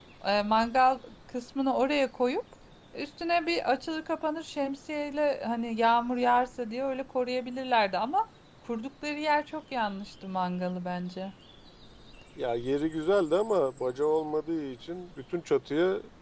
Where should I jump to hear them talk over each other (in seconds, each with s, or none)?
none